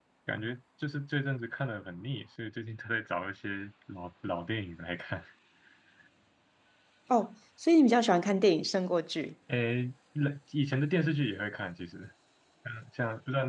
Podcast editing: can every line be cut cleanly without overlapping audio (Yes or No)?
Yes